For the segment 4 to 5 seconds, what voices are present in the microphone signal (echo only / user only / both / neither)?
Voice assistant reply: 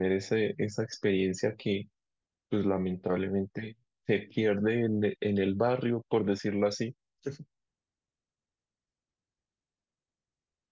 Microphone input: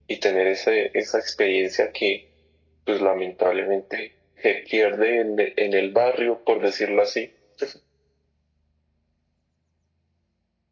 echo only